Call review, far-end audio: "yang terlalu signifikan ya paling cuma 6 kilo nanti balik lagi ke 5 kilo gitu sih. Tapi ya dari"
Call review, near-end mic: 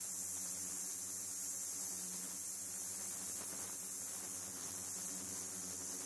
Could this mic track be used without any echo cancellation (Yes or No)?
Yes